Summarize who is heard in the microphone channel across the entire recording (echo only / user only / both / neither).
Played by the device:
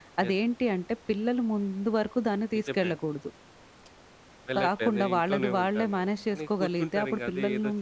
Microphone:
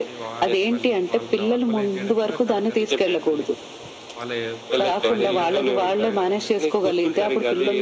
both